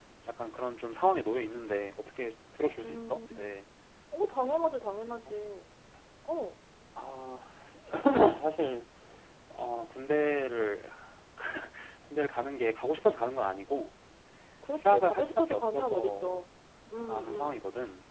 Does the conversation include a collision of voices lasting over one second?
Yes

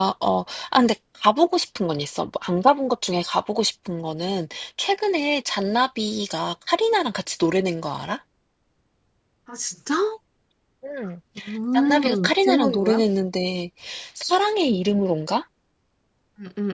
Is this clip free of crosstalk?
No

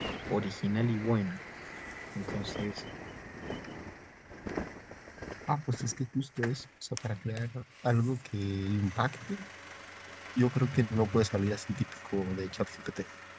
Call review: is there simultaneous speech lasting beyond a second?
No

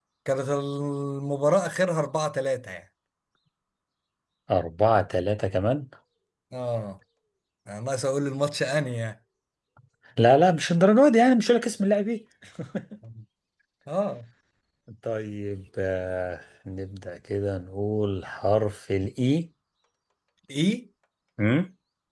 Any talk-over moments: No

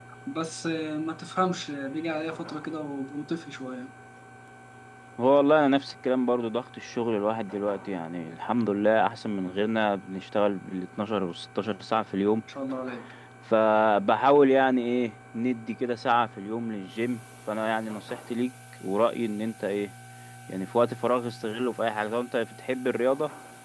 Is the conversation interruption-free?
Yes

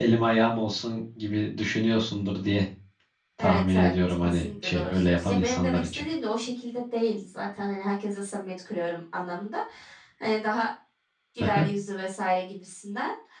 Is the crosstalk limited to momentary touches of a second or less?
No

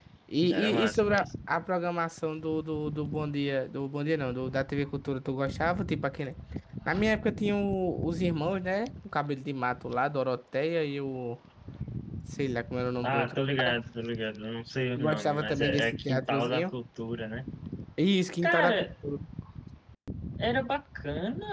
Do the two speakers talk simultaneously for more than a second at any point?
Yes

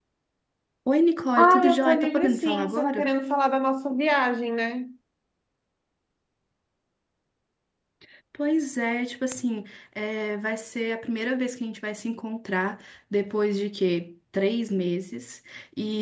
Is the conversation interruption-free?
No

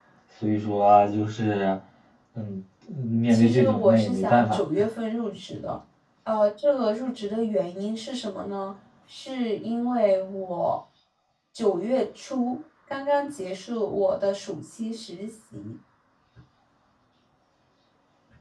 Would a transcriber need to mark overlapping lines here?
Yes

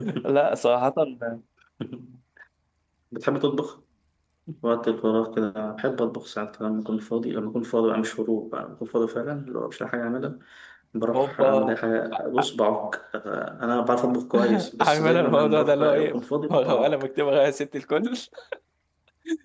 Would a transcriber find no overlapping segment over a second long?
No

